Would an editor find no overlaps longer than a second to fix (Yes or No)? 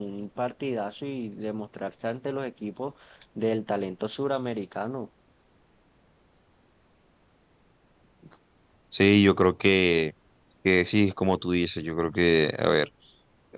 Yes